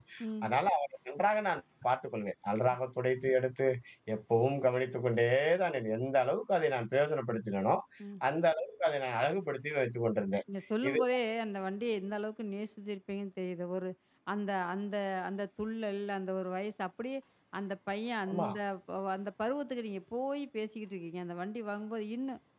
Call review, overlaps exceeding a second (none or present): none